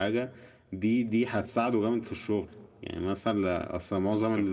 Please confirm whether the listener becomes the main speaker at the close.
No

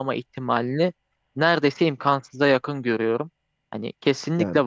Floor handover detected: No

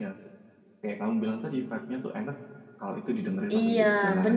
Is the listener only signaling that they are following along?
No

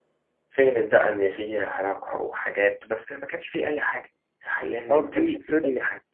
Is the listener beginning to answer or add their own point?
Yes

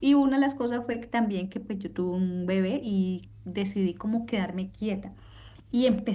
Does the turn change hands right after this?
No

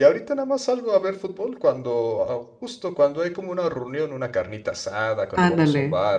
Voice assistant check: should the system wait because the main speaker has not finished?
Yes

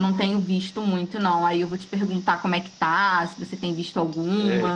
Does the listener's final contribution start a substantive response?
Yes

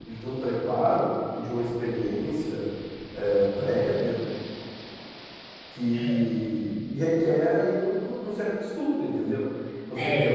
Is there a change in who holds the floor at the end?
No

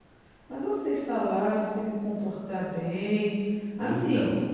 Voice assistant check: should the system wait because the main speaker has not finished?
Yes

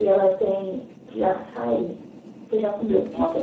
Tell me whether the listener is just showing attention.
No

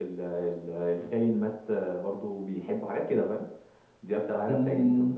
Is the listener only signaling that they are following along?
No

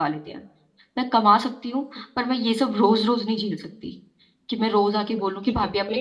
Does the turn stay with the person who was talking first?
No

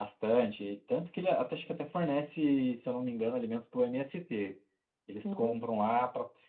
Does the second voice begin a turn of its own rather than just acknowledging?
No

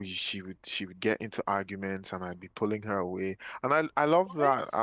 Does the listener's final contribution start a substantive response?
No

